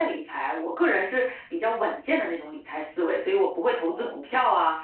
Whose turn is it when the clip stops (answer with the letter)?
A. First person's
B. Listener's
A